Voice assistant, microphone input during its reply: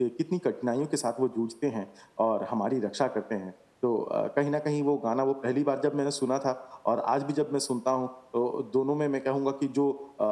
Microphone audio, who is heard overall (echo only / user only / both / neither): user only